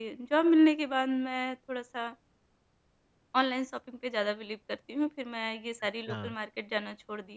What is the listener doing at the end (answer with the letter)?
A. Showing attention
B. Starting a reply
A